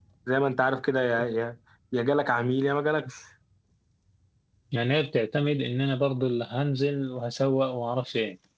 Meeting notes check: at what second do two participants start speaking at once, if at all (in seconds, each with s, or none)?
none